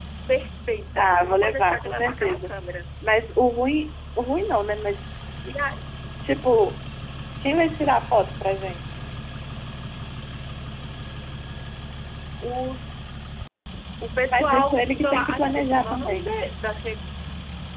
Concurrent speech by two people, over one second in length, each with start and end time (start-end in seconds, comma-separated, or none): 1.0-2.5, 14.3-16.4